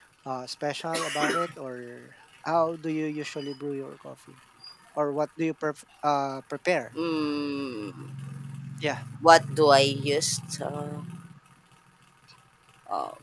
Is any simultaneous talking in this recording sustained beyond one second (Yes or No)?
No